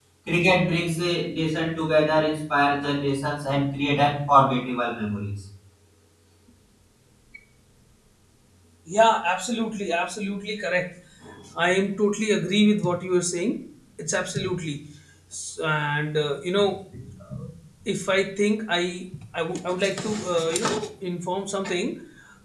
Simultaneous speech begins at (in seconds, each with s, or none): none